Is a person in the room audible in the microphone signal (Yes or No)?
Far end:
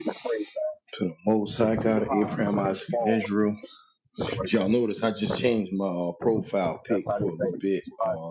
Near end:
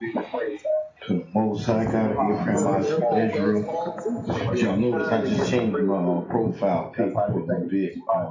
Yes